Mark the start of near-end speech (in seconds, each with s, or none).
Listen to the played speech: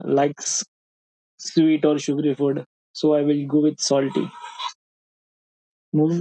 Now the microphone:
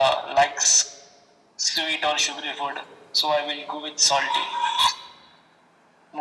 none